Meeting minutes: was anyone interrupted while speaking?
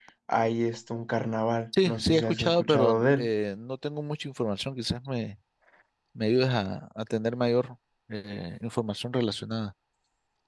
Yes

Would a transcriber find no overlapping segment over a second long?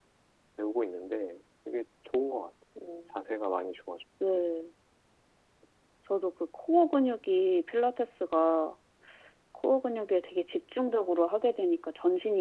Yes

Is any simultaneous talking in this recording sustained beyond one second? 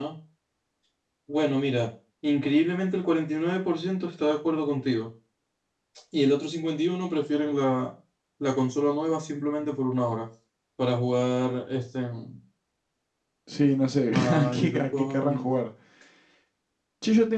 Yes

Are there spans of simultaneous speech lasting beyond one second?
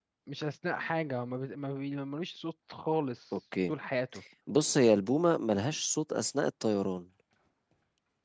No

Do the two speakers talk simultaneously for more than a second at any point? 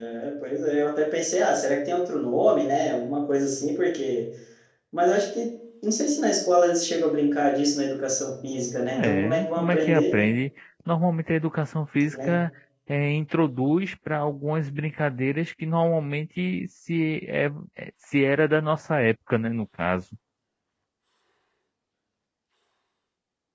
Yes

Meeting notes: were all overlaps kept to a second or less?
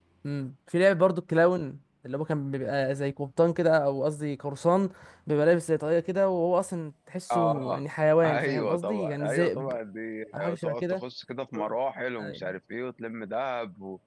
No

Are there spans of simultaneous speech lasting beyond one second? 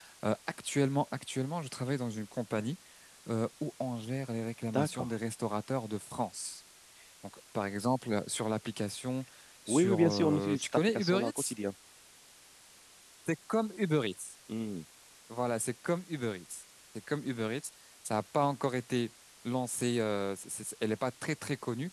Yes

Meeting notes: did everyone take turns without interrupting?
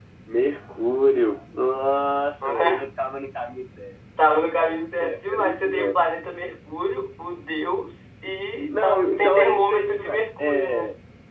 No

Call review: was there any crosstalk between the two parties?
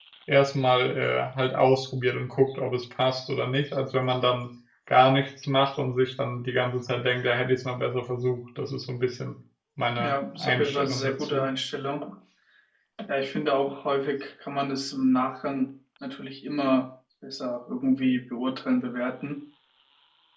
Yes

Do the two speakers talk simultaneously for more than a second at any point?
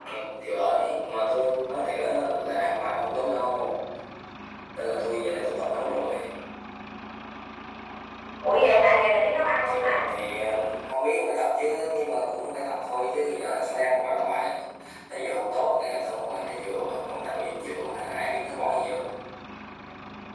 No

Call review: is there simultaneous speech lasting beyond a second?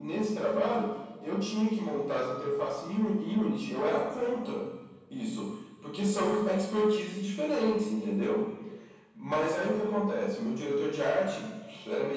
No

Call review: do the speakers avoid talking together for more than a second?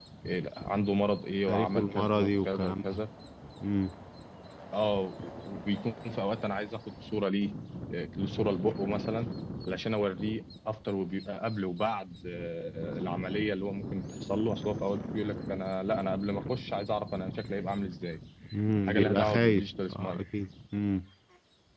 No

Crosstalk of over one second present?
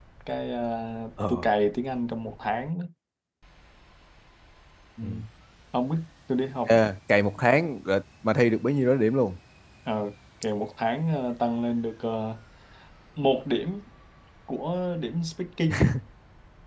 No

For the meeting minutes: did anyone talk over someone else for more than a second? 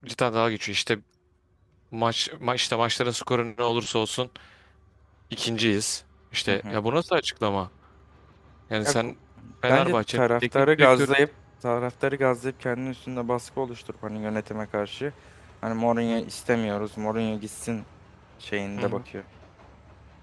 Yes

